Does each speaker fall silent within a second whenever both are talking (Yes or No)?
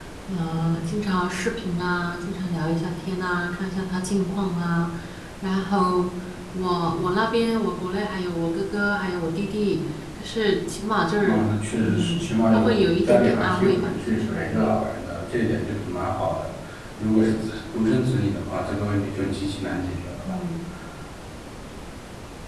No